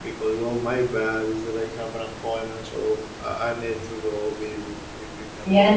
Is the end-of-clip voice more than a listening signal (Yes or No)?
Yes